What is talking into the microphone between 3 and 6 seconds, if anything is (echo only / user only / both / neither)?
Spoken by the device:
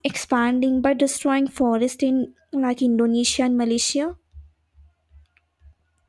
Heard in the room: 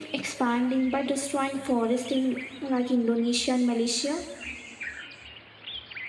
echo only